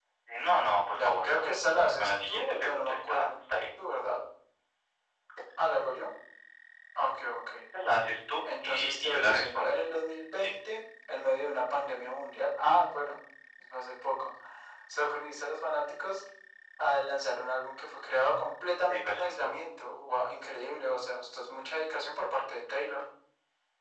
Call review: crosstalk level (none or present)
present